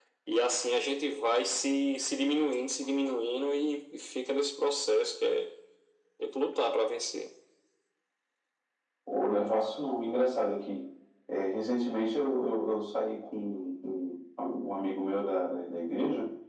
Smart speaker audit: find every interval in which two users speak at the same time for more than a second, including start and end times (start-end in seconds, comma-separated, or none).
none